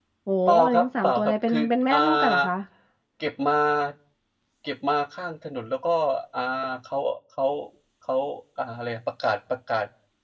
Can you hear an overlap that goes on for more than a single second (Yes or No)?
Yes